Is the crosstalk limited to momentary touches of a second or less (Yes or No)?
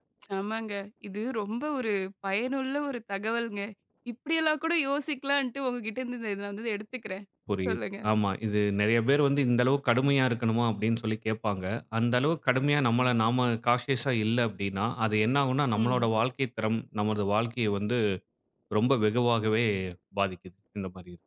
Yes